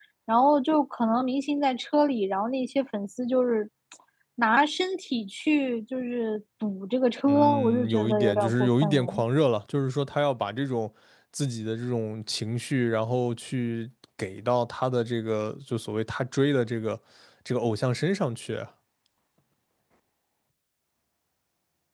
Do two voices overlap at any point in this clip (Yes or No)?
Yes